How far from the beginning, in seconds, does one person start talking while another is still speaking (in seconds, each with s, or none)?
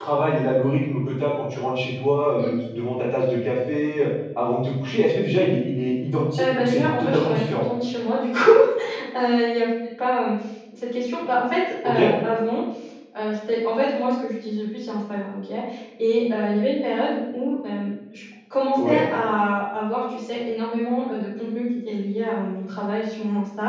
6.4 s